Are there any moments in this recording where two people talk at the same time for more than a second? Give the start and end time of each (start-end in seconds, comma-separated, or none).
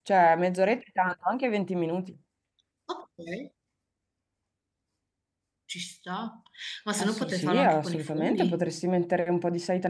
7.0-8.7